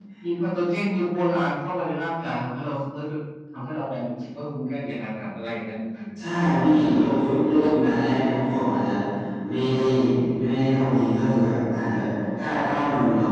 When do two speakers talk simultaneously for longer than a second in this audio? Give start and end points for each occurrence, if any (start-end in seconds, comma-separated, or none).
none